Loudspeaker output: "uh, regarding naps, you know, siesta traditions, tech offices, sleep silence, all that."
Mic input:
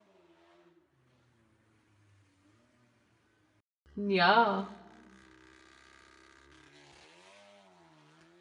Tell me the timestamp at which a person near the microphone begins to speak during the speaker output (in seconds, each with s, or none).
4.0 s